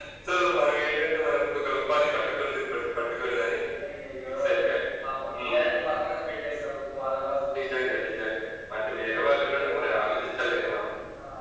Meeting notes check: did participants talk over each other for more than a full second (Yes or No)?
No